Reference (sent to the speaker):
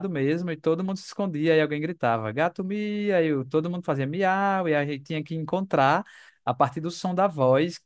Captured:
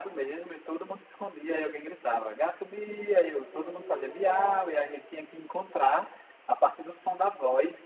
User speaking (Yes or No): Yes